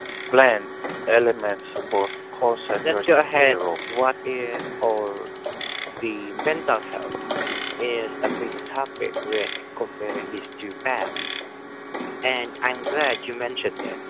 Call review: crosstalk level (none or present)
present